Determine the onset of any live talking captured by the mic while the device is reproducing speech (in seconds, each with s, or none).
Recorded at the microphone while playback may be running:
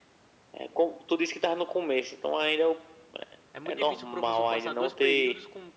3.5 s